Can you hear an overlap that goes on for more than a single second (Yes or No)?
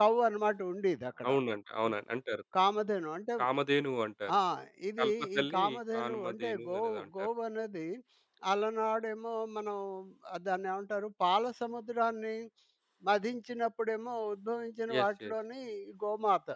Yes